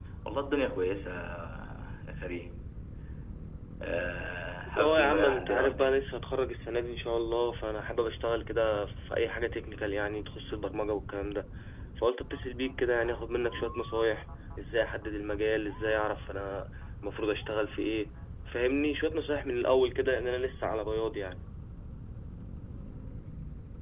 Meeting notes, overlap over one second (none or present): present